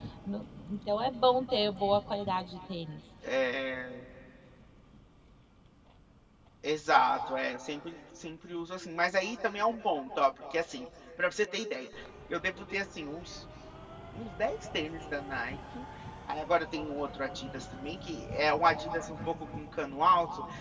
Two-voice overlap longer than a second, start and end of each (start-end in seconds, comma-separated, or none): none